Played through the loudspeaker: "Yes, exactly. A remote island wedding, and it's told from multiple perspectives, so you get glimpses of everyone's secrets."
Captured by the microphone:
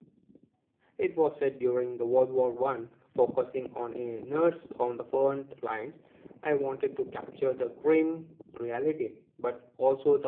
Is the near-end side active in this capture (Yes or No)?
Yes